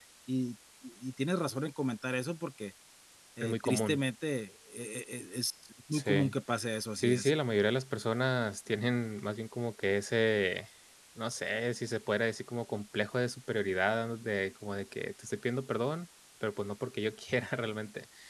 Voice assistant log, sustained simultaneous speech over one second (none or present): none